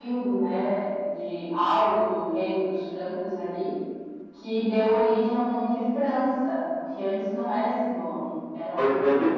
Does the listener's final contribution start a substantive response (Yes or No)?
Yes